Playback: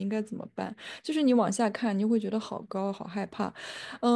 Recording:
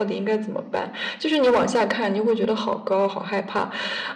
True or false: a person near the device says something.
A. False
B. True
A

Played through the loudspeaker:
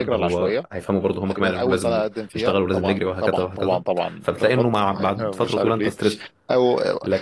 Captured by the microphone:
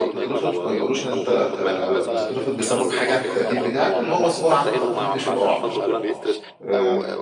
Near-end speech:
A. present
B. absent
A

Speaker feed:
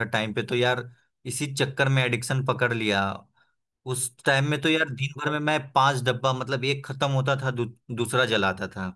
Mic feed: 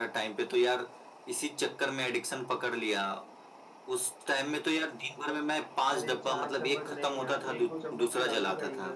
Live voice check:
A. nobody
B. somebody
B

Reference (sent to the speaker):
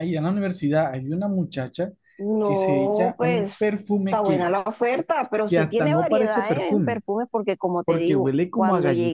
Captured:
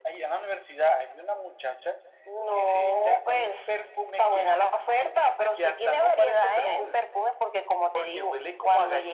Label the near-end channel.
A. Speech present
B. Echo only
B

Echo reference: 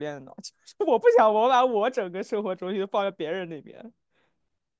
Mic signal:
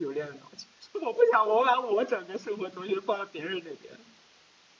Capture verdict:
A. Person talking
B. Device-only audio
B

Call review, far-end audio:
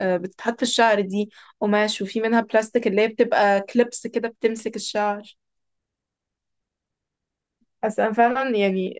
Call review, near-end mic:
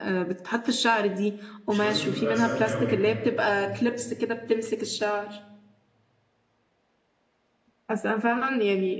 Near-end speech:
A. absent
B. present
B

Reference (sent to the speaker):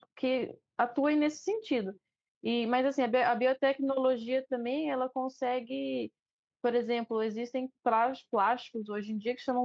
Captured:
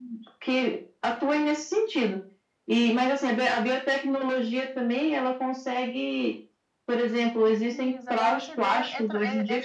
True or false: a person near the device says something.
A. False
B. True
B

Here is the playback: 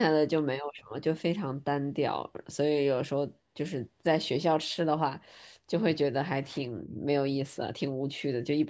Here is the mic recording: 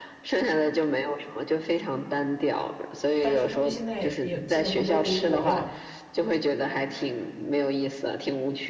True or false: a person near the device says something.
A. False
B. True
B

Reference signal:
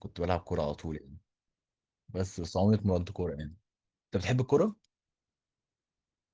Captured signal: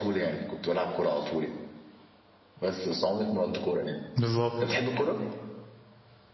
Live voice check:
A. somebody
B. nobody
A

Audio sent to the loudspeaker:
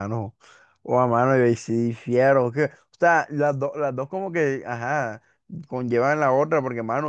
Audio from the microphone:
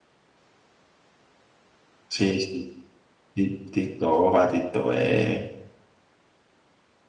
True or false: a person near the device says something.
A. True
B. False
A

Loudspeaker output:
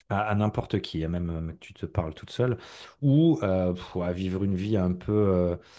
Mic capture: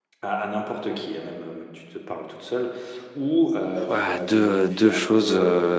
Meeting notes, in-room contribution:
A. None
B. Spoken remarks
B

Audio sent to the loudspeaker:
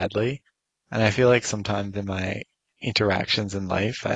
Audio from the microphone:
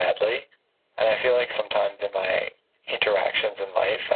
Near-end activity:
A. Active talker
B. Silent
B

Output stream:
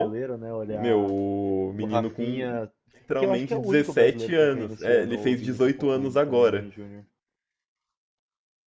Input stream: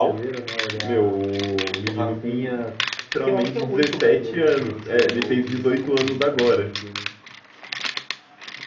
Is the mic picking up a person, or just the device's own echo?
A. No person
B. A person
A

